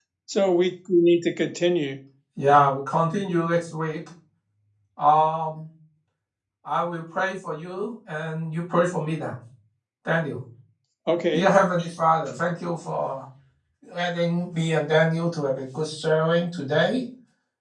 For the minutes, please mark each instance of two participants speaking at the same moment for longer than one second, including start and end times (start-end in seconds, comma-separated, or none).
none